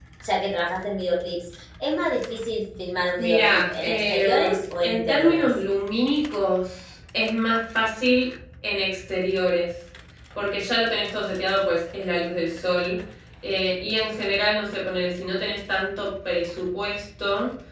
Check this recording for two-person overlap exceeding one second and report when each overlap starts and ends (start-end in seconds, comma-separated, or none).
3.2-5.5